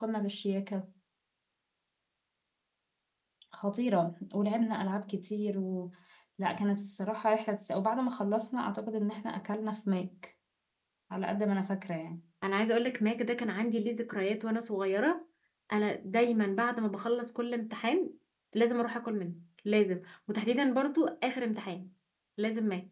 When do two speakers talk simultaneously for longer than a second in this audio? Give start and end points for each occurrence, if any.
none

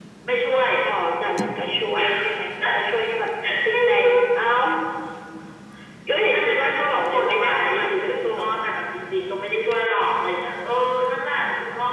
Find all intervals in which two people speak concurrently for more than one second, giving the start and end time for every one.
6.3-8.5

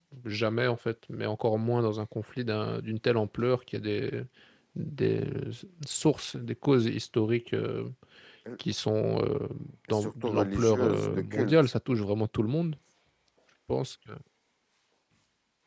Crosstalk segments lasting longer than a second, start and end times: 9.9-11.6

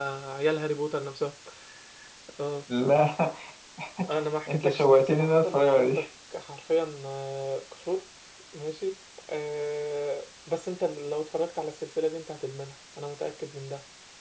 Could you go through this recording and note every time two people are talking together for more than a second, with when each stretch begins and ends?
4.5-6.0

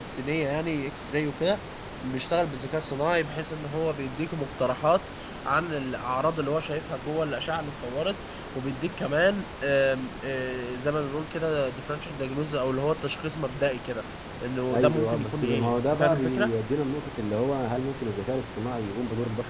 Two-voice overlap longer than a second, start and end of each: 14.7-16.5

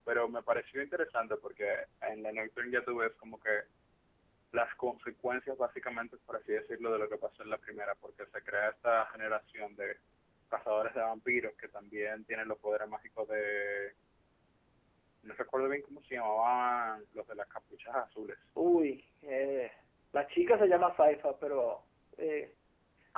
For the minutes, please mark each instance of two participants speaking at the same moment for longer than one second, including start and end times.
none

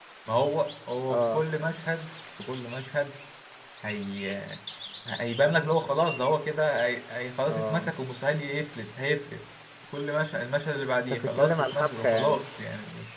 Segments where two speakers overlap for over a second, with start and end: 10.9-12.5

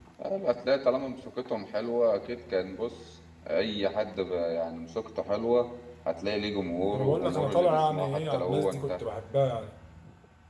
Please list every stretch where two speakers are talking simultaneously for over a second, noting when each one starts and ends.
6.9-9.0

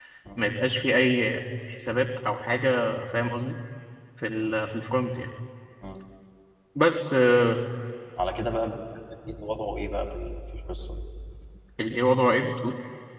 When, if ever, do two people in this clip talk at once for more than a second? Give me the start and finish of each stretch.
none

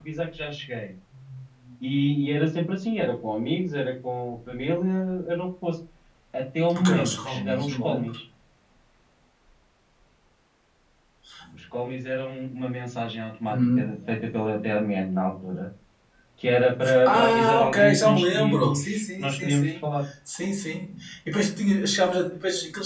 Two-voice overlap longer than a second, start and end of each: 6.7-8.2, 17.1-19.8

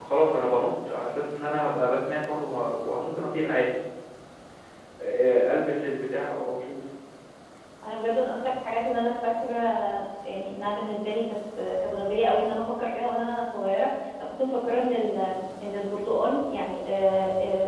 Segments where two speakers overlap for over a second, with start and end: none

